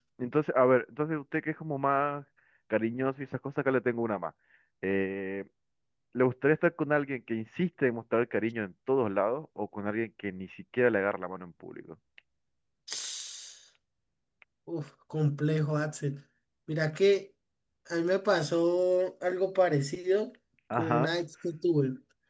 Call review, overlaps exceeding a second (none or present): none